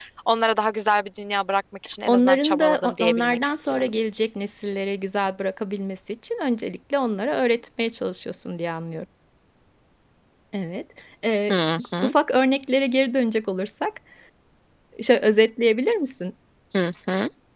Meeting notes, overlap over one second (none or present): present